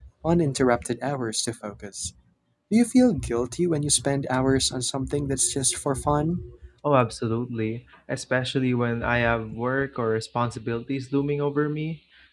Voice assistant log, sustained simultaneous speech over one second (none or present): none